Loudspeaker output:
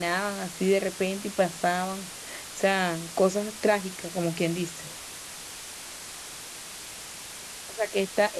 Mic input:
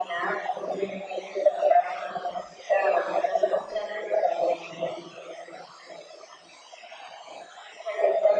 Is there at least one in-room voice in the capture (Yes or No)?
No